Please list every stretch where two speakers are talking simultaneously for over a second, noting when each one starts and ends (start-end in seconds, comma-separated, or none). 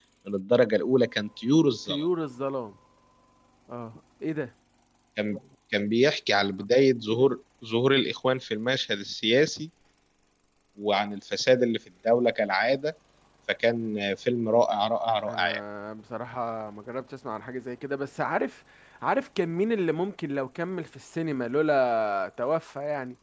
none